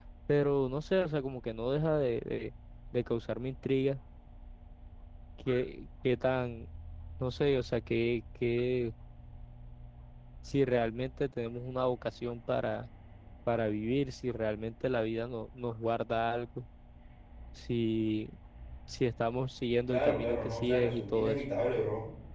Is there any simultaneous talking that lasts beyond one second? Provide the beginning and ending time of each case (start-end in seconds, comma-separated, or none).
19.9-21.4